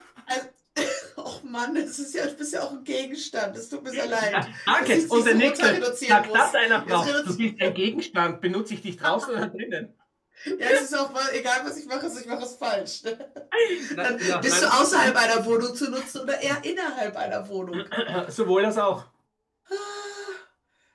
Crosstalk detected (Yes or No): Yes